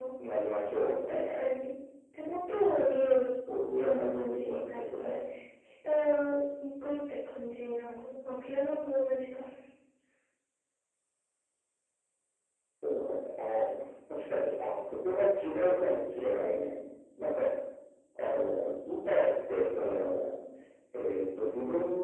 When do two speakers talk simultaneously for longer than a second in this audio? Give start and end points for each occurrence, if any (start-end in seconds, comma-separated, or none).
3.8-5.2